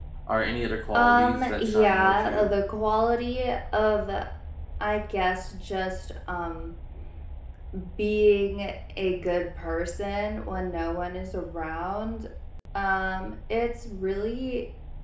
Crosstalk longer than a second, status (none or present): present